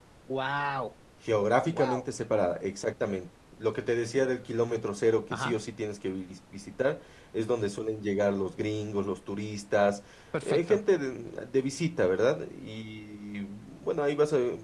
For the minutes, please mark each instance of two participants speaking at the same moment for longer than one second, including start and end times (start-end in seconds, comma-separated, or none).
none